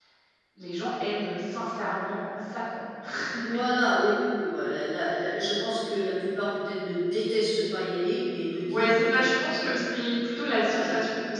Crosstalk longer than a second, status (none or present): none